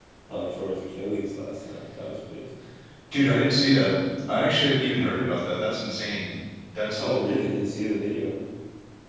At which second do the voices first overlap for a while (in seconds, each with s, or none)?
none